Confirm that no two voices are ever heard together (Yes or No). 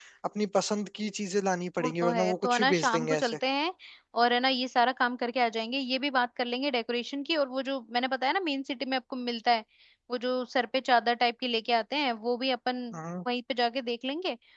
No